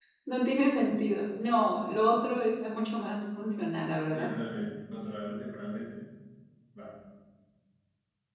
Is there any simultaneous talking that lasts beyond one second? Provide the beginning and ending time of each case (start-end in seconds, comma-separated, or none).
none